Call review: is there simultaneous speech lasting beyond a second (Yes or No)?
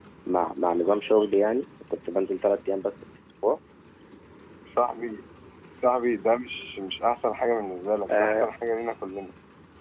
No